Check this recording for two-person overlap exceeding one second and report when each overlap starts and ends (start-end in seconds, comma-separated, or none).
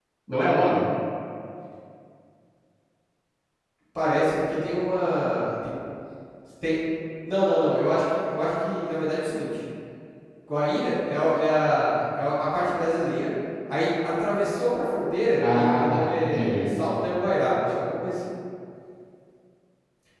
15.4-16.6